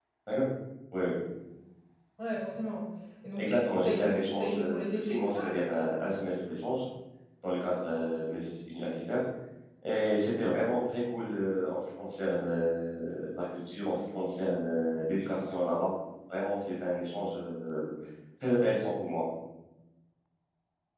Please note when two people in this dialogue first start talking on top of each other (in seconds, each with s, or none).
3.4 s